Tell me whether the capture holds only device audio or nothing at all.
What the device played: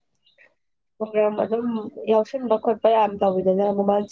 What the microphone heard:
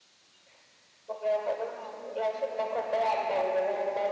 Yes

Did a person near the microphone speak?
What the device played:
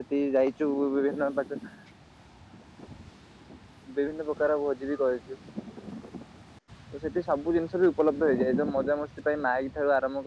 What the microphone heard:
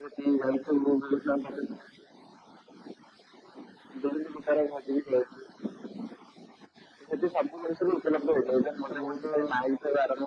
Yes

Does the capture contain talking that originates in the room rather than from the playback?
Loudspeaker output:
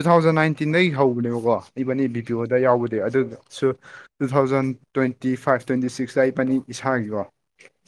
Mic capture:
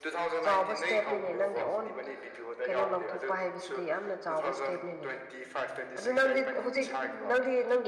Yes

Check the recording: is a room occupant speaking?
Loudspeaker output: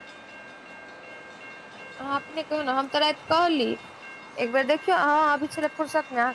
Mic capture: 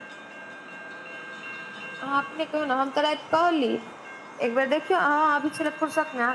No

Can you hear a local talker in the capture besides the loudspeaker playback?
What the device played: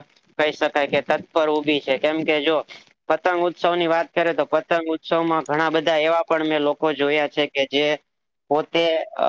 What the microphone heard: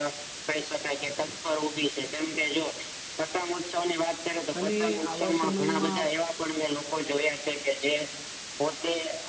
Yes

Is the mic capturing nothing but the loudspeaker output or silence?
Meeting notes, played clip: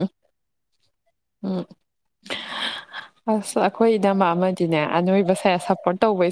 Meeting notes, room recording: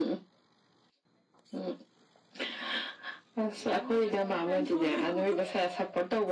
No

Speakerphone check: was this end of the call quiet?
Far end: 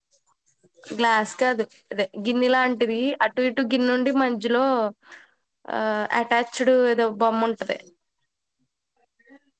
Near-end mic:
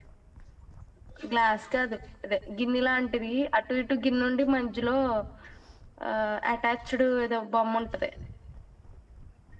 Yes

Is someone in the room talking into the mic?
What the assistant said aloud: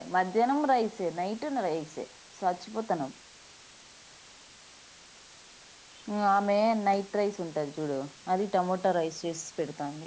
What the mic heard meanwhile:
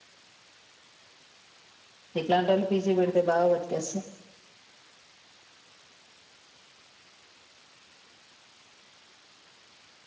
Yes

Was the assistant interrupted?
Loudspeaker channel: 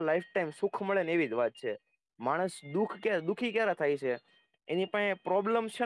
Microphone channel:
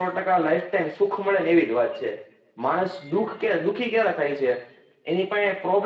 No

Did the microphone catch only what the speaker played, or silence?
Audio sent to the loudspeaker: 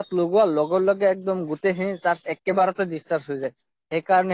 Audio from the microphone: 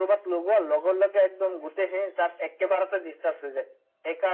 Yes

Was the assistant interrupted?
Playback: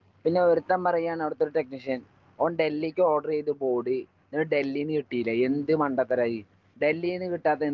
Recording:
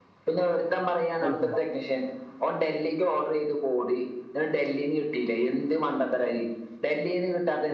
Yes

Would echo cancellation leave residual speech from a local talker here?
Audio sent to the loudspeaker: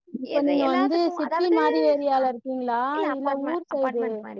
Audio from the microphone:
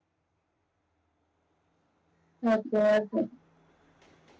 Yes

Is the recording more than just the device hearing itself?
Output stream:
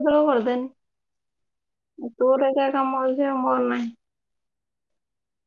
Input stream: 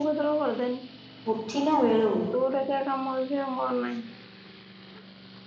Yes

